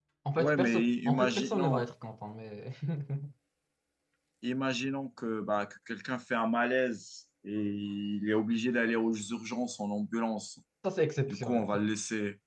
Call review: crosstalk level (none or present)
present